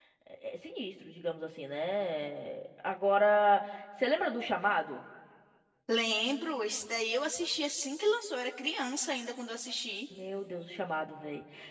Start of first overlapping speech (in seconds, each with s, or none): none